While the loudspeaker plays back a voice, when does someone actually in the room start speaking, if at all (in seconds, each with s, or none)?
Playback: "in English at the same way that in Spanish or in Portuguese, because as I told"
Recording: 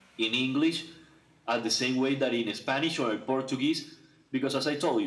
none